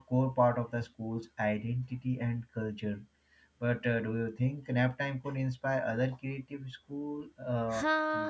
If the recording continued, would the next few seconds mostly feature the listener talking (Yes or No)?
Yes